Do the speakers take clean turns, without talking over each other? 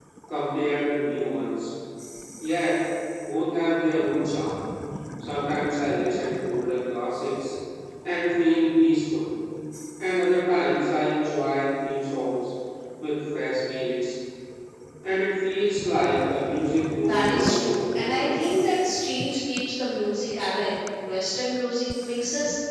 No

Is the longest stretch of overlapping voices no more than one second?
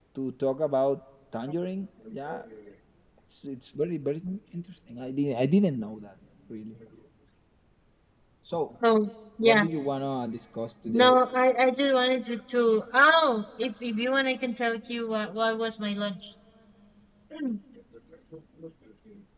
Yes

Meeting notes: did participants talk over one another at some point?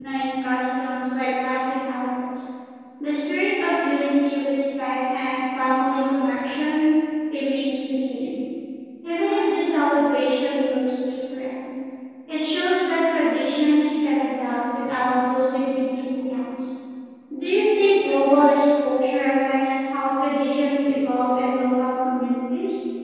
No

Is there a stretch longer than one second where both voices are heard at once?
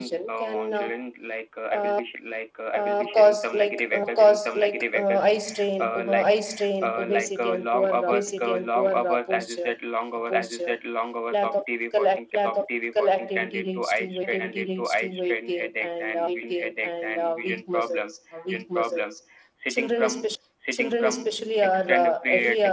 Yes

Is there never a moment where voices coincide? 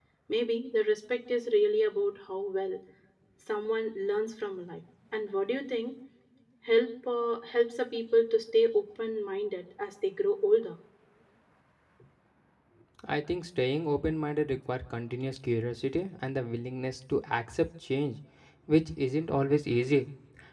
Yes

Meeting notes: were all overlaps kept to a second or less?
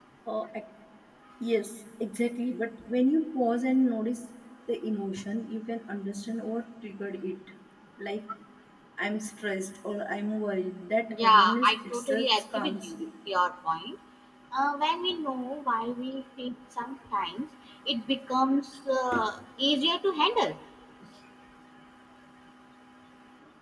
No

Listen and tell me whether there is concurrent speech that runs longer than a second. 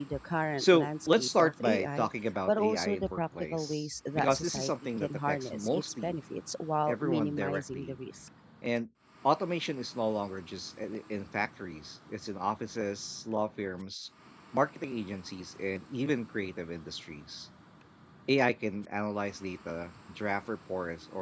Yes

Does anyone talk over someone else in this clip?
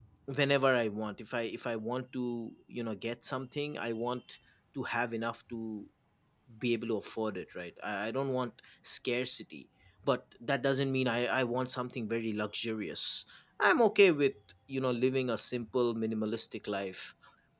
No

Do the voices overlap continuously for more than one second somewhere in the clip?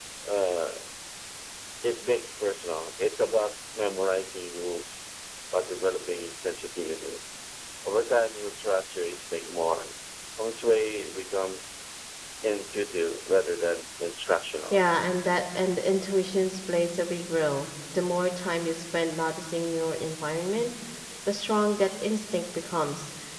No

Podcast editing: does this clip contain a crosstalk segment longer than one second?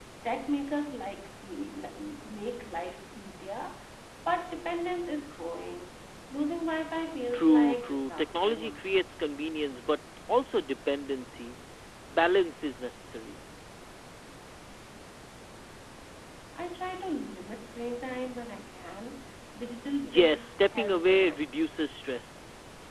Yes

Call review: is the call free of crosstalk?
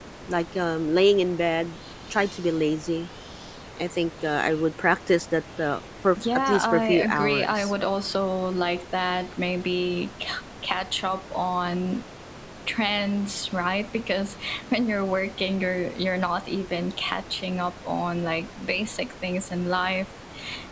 No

